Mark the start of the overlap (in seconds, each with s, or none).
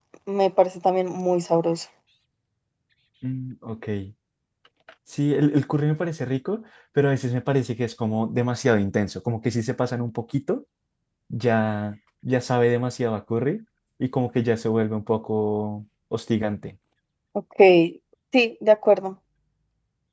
none